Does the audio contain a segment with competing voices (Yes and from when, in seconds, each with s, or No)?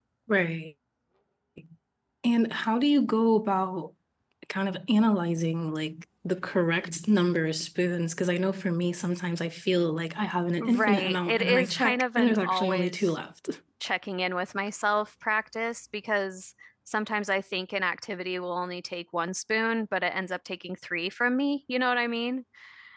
Yes, from 10.6 s